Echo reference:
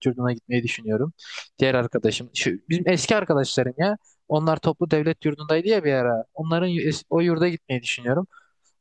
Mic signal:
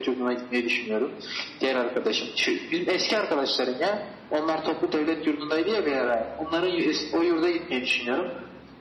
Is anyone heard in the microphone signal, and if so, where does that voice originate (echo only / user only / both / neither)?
echo only